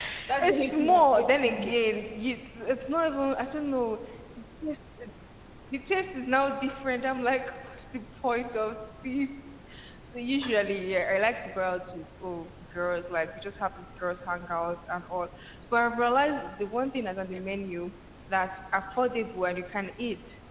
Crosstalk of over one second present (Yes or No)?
Yes